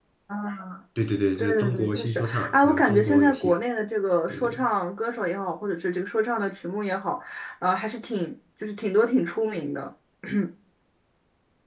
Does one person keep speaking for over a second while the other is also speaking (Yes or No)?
Yes